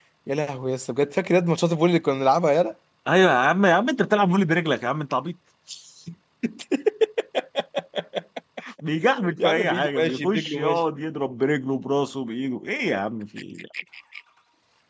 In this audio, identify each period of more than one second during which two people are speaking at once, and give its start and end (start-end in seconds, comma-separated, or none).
9.4-10.8